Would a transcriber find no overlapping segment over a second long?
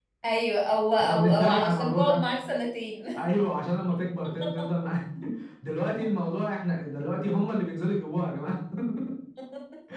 No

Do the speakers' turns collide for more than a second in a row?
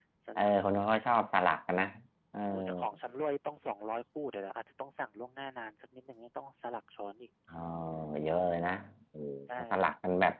No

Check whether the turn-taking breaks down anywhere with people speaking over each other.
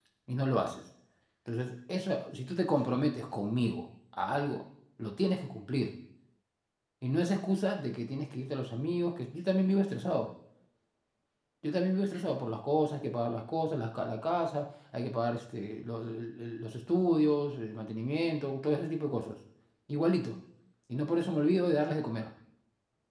No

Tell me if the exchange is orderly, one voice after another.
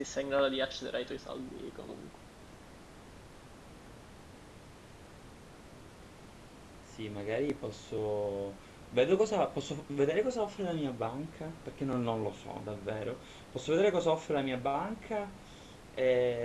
Yes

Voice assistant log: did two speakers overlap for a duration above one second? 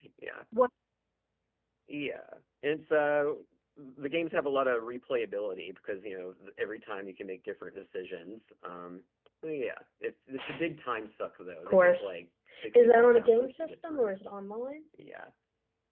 Yes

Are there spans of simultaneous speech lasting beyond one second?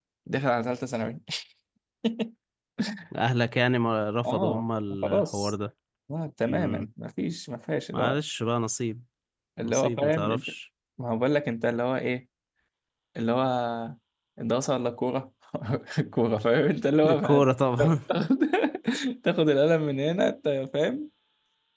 Yes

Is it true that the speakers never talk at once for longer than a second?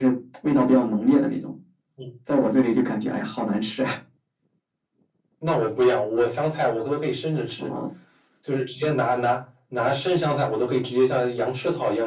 Yes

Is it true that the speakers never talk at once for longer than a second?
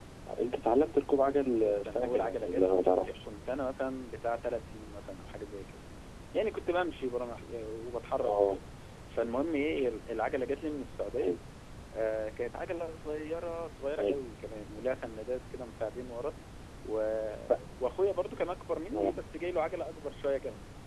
No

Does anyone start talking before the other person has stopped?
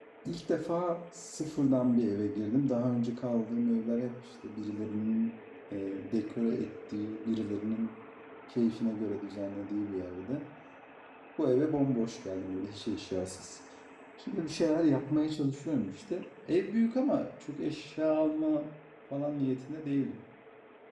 No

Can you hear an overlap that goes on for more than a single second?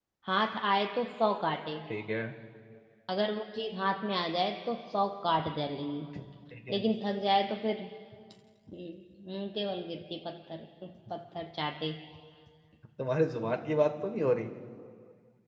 No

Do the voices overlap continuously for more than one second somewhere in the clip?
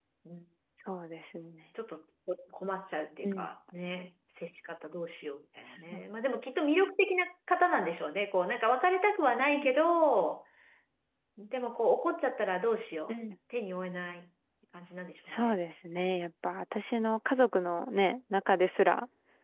No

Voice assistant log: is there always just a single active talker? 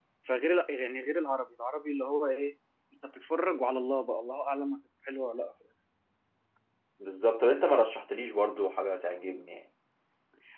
Yes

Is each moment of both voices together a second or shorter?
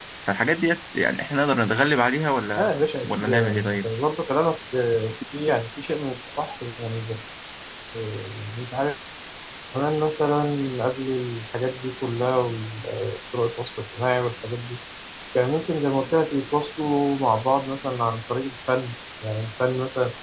No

